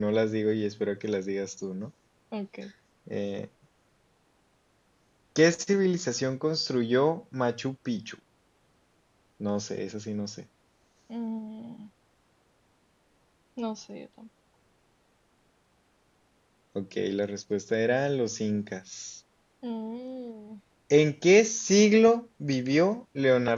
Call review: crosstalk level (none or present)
none